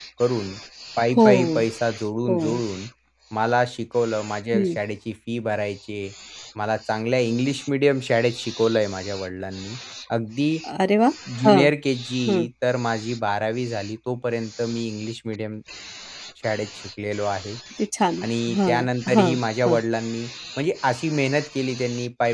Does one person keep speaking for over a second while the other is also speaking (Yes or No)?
Yes